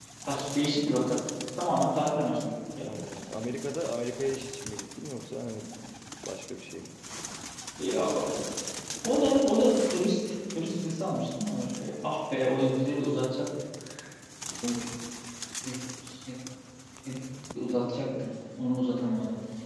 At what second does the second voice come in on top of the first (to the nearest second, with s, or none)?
none